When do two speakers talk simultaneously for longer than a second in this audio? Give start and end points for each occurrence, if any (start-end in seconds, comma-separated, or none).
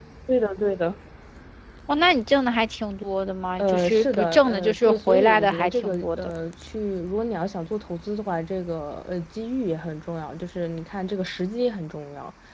3.6-6.3